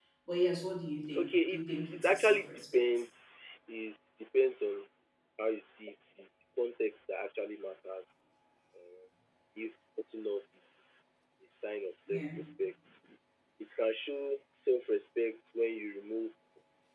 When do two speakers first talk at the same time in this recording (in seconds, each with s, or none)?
1.1 s